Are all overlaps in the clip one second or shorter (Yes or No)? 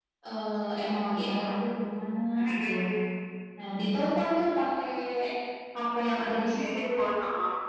Yes